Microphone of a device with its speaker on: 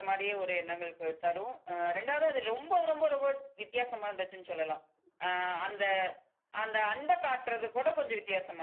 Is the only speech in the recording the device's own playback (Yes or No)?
Yes